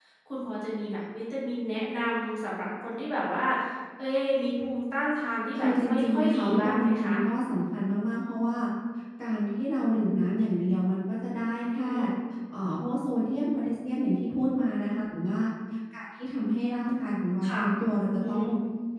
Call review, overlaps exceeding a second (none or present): present